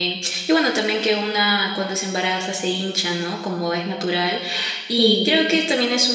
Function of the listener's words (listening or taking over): listening